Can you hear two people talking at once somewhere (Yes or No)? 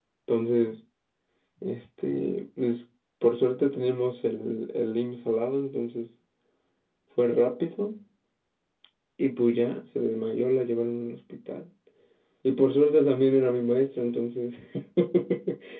No